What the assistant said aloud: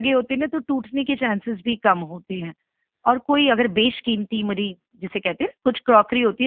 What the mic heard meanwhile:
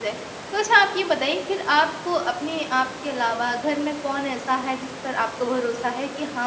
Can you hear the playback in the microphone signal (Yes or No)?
No